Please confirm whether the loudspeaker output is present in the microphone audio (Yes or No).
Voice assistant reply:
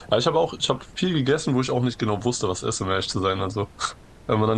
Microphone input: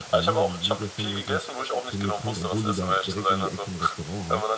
Yes